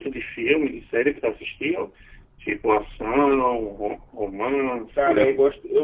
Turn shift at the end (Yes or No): Yes